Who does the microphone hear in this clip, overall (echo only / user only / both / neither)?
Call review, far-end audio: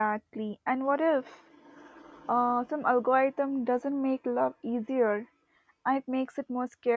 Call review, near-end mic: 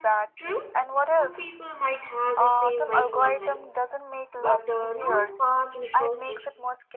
both